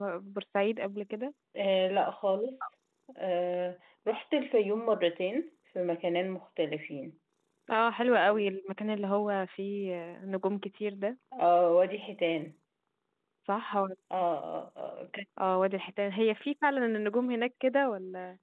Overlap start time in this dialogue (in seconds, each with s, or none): none